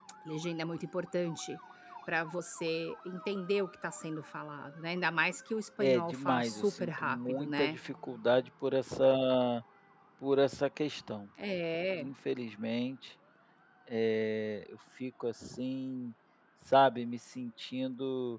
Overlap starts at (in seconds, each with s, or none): 5.8 s